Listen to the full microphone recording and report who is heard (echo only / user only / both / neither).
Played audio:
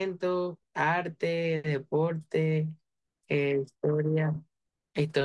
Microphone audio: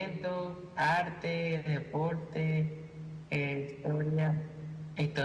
echo only